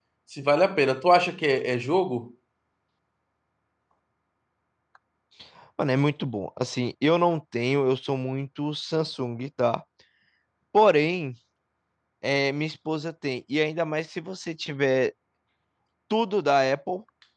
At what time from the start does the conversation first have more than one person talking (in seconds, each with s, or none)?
none